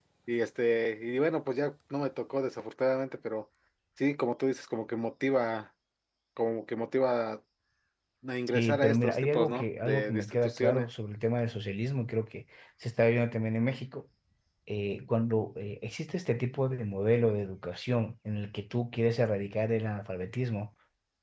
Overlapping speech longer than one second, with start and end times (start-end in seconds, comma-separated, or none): 8.5-10.9